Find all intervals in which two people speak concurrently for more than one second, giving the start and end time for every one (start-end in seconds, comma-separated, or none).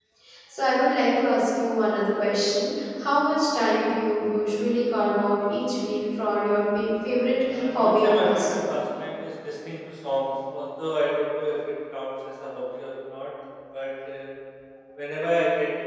7.5-8.7